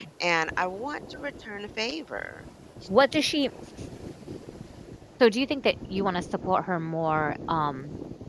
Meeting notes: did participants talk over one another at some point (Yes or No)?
No